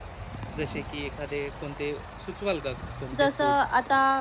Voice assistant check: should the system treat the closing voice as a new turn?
Yes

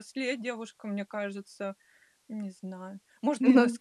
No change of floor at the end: Yes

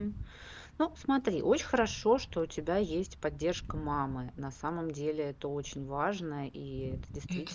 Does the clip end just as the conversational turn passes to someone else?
No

